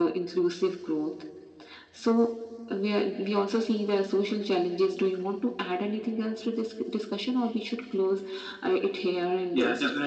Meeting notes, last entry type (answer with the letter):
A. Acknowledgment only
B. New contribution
B